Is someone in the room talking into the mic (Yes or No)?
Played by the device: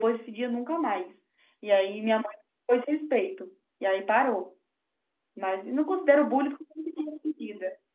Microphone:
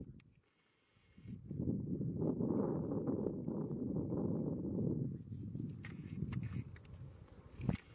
No